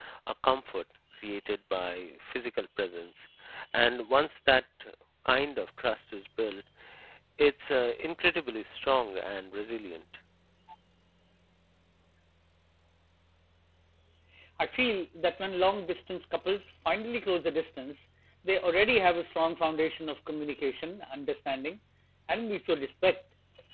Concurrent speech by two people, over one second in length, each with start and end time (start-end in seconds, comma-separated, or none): none